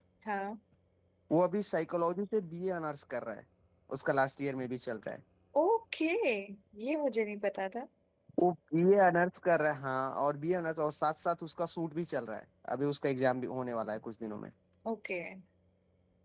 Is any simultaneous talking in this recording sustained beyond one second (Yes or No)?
No